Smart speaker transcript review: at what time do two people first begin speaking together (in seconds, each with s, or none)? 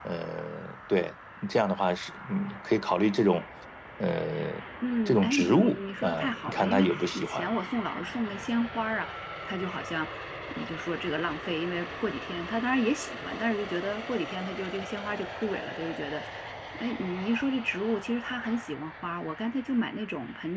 5.0 s